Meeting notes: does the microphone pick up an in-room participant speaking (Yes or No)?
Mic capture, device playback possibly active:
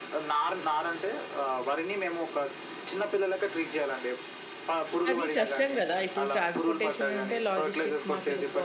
Yes